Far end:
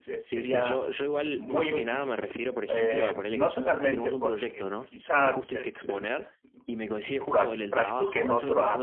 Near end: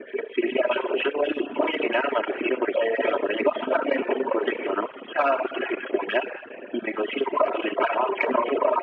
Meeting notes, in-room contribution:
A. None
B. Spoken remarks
A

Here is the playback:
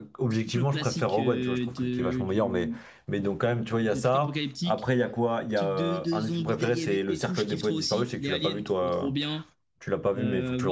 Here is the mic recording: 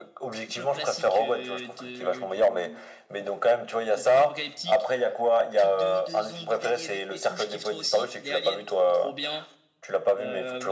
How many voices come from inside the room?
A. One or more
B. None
B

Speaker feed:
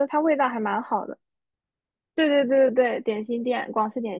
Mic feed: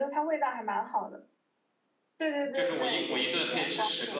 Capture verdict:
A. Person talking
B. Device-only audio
A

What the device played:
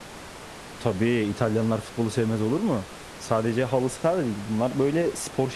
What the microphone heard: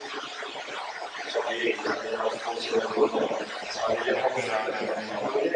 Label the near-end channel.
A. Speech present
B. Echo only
A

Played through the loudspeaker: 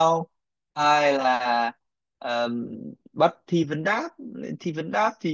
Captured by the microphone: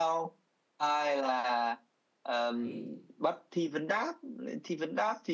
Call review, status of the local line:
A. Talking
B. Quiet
A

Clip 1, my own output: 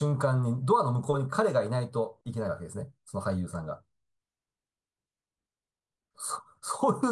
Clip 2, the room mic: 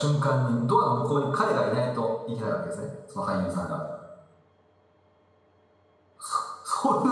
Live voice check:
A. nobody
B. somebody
A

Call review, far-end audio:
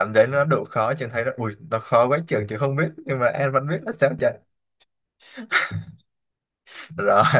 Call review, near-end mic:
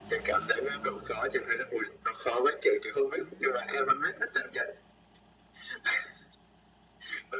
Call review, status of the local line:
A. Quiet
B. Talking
A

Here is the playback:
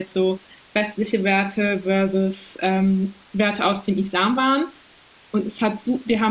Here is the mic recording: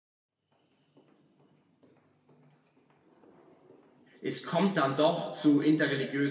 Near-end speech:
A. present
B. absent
A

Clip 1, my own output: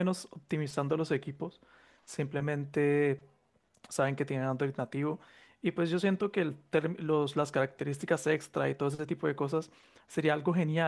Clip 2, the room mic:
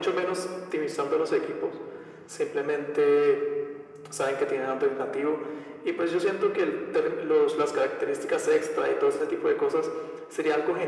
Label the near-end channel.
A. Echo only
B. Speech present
A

